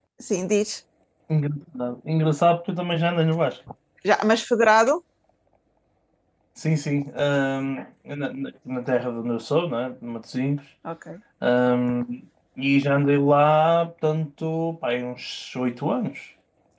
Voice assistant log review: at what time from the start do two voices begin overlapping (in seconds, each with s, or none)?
none